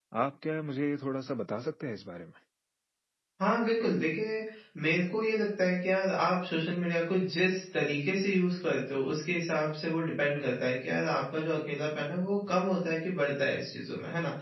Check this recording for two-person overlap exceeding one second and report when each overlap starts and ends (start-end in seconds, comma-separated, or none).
none